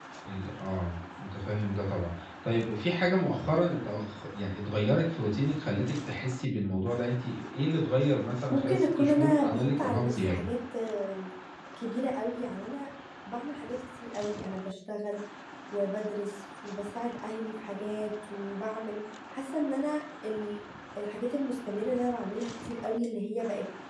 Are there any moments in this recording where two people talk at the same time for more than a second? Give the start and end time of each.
8.5-10.5

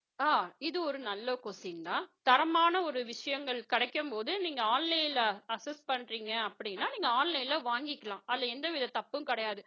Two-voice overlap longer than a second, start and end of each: none

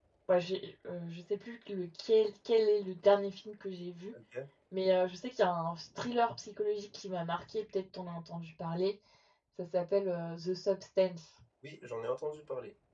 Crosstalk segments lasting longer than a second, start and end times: none

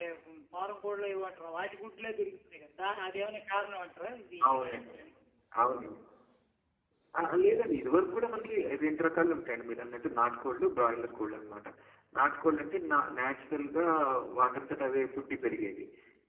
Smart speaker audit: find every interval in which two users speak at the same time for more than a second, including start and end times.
none

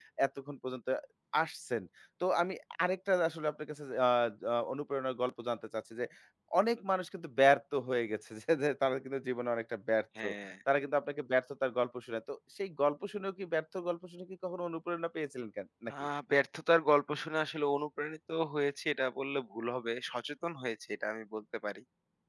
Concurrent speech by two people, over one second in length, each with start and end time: none

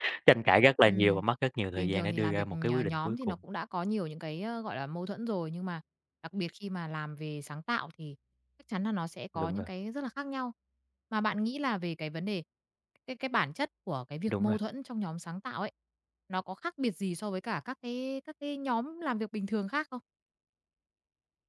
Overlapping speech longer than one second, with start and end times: 1.8-3.3

